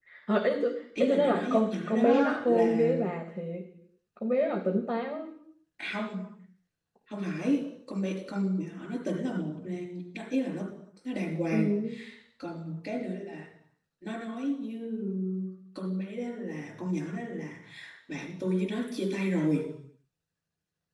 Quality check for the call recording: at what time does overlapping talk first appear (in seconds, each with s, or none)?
1.0 s